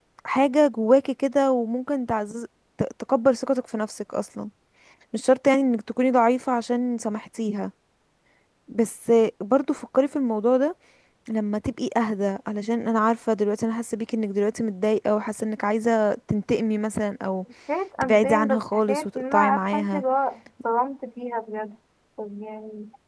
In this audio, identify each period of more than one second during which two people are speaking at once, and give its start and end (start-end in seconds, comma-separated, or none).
18.0-20.0